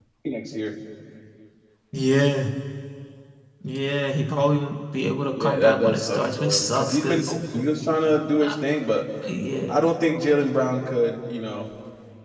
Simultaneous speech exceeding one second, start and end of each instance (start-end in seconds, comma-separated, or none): 5.3-7.3